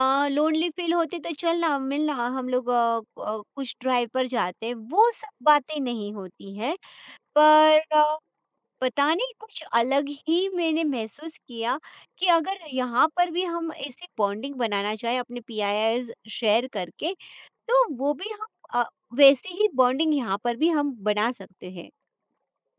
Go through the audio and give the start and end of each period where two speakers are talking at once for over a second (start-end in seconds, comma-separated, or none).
none